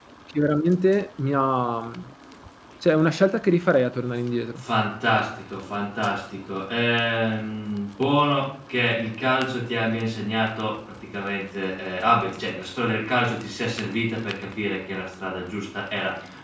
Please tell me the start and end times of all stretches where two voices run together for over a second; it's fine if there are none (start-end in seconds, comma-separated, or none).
none